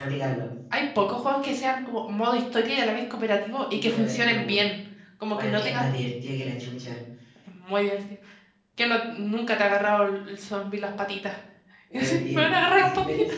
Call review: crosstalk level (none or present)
present